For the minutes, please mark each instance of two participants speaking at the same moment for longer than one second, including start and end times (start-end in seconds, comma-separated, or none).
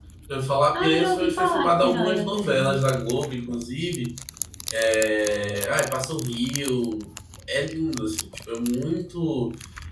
0.7-2.8